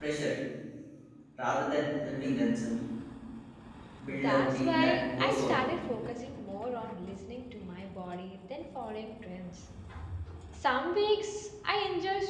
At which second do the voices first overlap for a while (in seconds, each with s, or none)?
4.2 s